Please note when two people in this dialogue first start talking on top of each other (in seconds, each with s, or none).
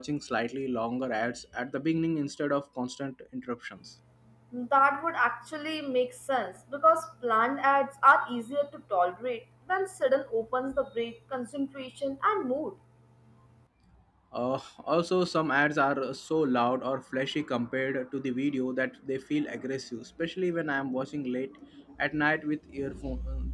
none